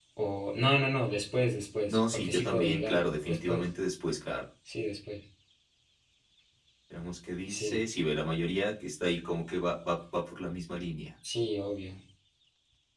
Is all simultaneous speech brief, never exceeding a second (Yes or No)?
No